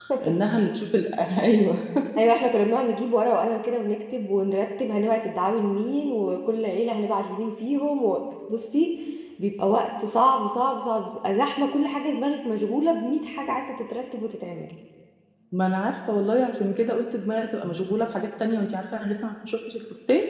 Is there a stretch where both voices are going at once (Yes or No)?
No